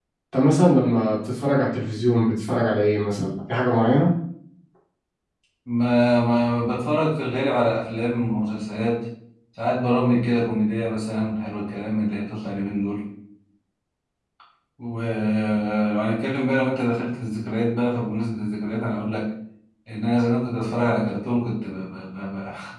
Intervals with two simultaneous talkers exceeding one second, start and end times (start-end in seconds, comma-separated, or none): none